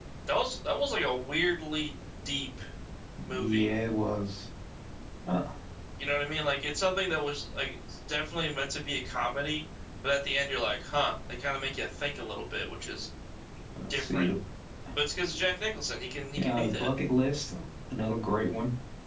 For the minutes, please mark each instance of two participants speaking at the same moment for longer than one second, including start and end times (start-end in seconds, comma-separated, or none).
none